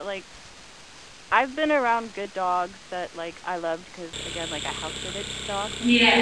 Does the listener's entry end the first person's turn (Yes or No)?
Yes